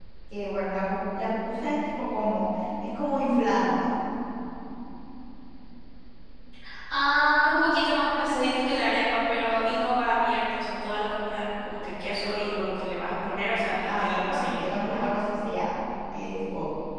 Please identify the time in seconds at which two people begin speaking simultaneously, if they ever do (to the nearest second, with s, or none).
14 s